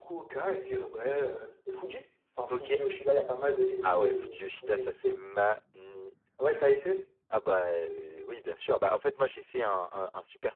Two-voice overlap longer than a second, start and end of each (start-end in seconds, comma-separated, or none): 3.8-5.1